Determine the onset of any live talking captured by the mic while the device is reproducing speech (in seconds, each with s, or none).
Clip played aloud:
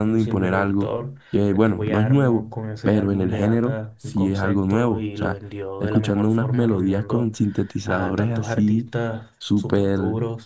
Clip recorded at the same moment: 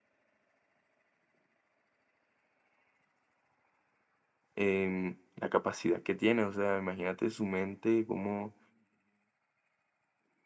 4.5 s